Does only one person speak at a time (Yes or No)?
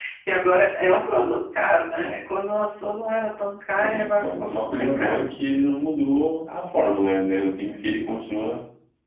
No